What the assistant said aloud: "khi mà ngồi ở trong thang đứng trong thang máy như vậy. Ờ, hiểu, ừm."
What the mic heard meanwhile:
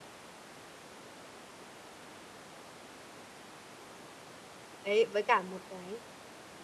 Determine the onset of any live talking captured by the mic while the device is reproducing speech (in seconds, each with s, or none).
4.8 s